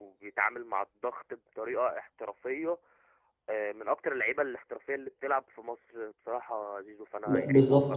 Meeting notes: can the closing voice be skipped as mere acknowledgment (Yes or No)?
No